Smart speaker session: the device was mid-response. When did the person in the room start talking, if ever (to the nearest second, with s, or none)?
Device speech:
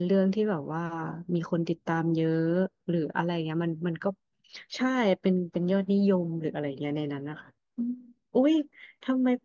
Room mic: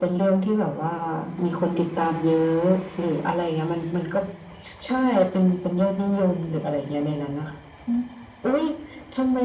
none